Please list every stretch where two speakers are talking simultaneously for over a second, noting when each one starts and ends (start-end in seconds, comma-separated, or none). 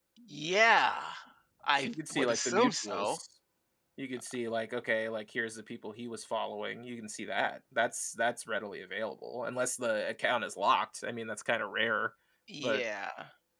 1.8-3.2